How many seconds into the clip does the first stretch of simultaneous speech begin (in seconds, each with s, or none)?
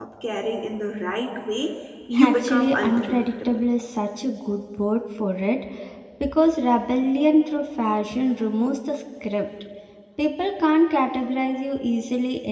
2.1 s